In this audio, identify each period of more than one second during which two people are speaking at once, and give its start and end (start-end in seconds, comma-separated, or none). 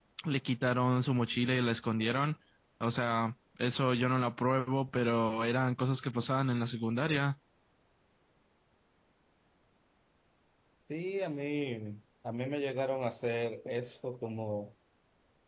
none